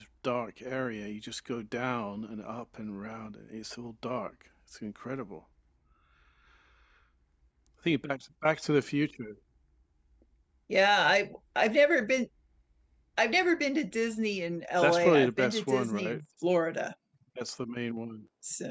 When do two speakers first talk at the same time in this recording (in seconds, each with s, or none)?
14.8 s